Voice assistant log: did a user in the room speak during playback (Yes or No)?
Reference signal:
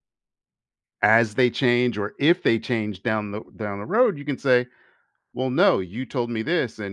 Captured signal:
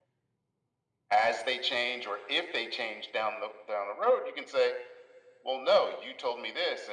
No